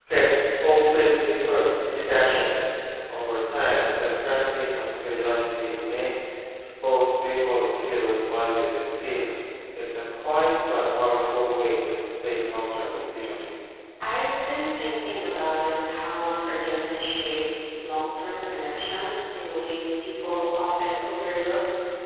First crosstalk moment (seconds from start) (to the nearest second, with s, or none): none